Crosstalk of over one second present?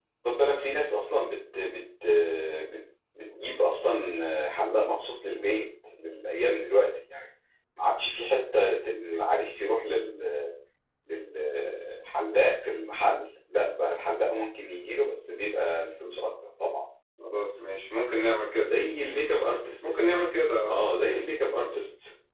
No

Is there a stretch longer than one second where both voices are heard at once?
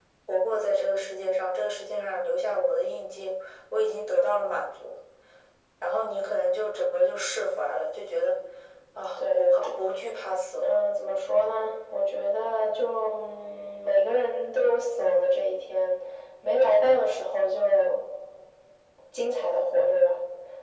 No

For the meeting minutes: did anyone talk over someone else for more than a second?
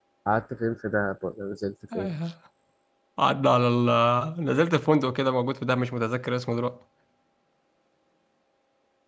No

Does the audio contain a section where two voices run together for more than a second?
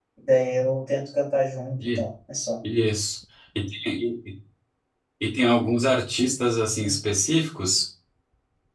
No

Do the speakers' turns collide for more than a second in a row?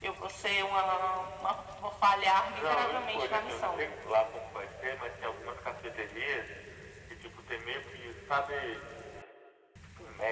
Yes, from 2.5 s

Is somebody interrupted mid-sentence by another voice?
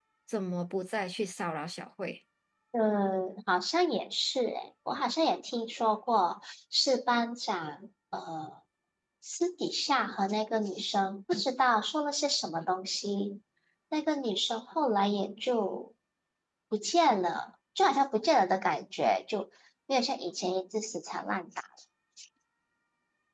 No

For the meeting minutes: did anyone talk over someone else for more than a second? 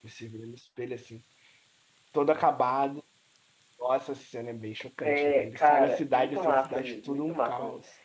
Yes, from 5.0 s

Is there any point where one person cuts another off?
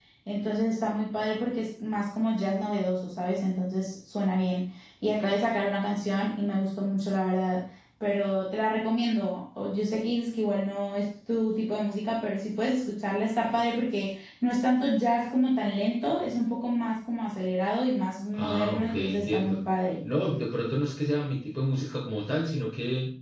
Yes, from 18.3 s

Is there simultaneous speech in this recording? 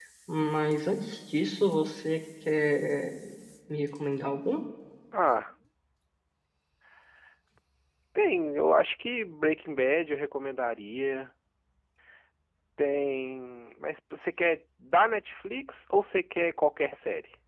No

